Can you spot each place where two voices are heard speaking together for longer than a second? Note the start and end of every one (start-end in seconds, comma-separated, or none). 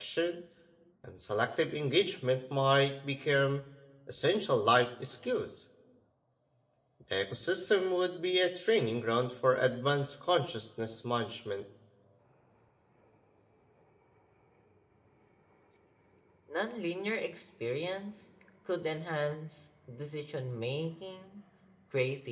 none